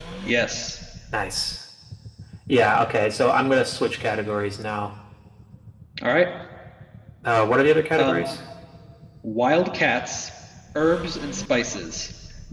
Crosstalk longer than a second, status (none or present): none